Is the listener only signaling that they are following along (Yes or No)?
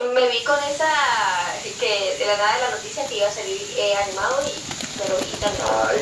No